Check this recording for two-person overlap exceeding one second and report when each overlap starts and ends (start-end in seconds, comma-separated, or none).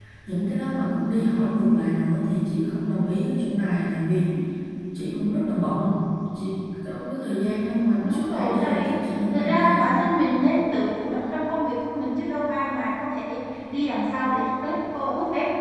8.0-9.9